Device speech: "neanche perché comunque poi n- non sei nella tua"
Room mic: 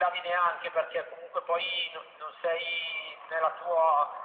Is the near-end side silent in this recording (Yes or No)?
Yes